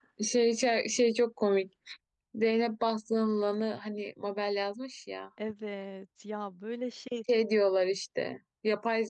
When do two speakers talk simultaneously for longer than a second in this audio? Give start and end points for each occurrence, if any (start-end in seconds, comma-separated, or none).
none